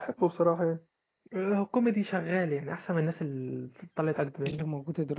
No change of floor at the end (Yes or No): No